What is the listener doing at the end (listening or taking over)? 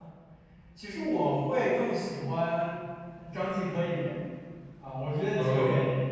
listening